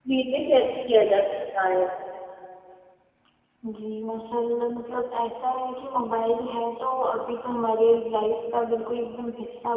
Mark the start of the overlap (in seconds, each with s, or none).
none